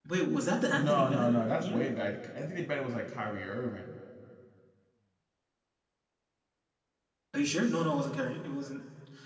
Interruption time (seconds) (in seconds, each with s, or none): 0.7 s